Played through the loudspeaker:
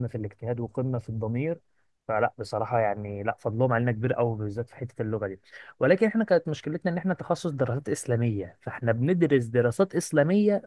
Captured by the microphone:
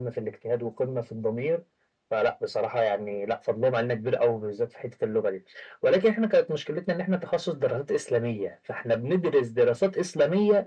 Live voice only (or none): none